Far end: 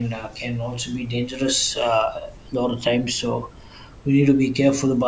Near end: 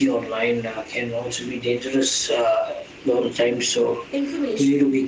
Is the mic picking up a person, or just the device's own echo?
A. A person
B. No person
A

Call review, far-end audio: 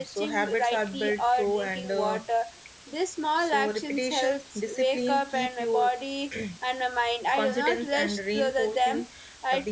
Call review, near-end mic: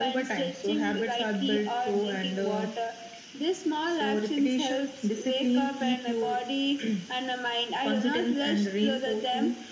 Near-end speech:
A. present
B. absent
B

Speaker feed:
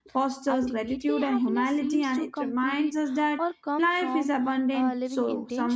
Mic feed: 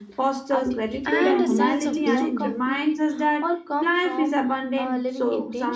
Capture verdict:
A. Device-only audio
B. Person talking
B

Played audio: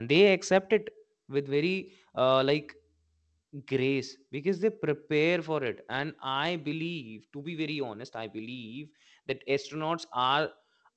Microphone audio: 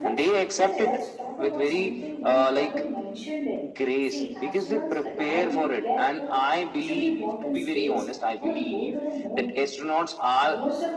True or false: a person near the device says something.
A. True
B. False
A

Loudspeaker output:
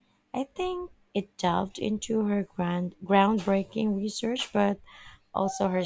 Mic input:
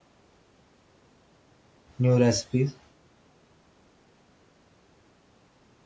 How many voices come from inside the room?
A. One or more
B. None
A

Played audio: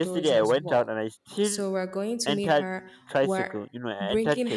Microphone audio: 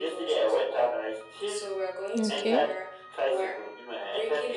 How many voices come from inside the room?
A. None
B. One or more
B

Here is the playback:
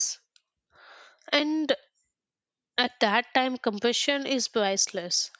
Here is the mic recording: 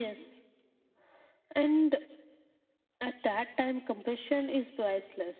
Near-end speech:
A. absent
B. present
A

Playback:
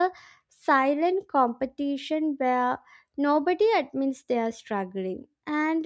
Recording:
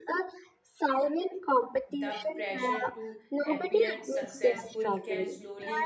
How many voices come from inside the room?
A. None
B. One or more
B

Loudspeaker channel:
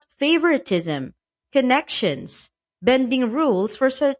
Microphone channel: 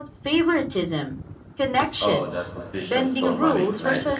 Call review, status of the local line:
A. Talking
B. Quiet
A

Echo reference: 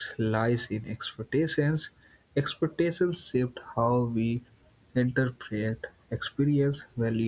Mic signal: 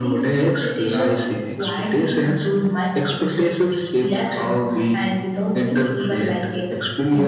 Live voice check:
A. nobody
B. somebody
B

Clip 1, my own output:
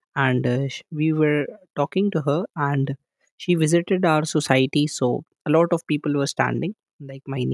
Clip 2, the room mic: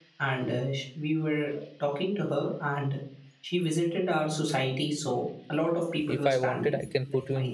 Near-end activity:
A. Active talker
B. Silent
A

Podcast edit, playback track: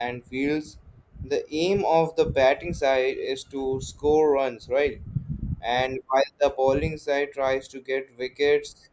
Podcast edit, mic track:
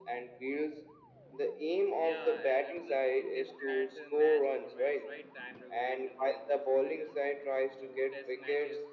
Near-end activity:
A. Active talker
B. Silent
A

